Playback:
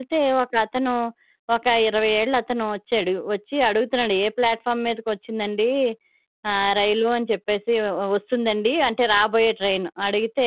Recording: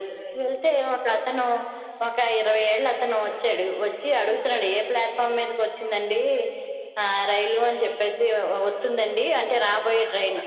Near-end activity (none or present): none